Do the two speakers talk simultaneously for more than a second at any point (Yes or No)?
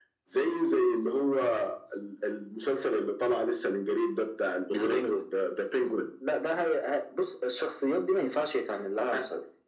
No